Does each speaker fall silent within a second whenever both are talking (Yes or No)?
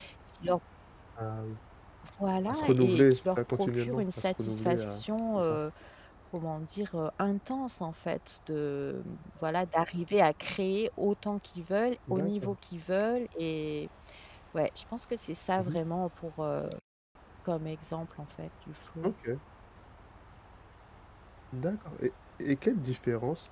No